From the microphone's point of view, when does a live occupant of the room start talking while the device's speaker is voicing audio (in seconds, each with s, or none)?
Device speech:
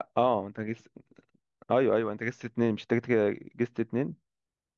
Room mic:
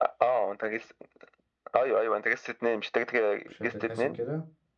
3.5 s